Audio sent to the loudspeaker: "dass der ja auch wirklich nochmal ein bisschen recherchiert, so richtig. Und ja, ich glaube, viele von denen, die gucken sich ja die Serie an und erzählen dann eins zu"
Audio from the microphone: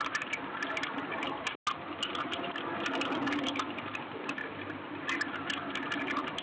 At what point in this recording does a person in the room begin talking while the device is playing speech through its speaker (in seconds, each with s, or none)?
none